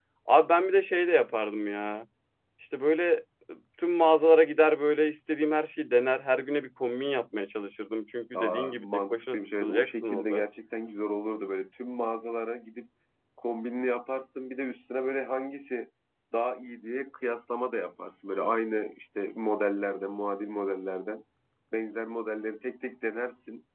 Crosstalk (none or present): present